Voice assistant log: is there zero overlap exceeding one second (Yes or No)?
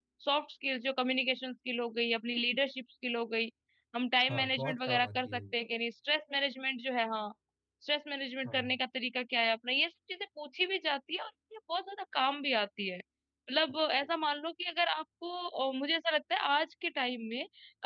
No